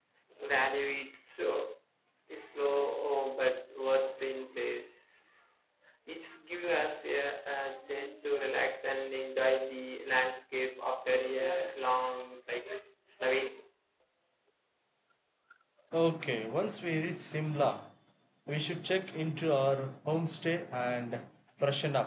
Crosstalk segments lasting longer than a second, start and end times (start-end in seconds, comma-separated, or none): none